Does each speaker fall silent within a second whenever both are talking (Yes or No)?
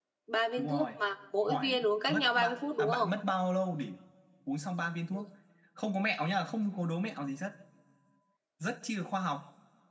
No